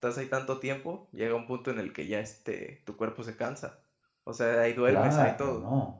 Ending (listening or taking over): taking over